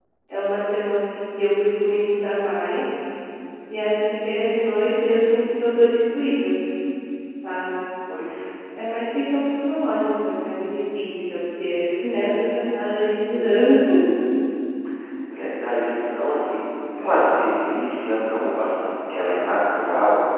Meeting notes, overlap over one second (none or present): none